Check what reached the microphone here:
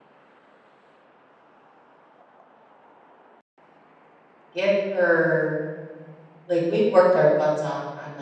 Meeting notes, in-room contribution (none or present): present